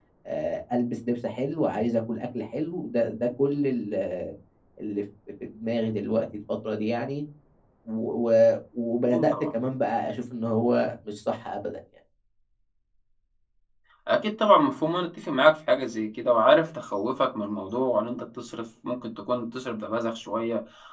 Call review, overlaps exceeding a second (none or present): none